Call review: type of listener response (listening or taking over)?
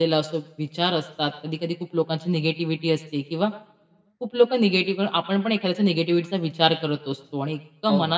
listening